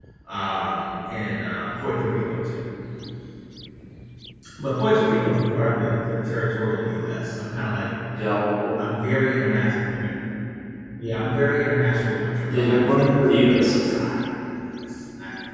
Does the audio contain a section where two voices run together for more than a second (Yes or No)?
Yes